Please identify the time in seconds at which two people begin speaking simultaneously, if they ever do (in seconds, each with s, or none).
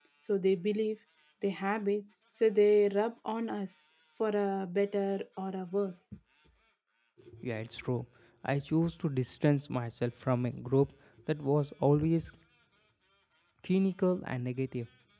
none